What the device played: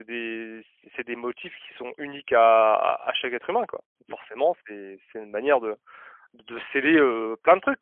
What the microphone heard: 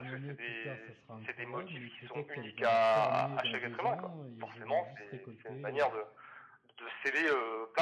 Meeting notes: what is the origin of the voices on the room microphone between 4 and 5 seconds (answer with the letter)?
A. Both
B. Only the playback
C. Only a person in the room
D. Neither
A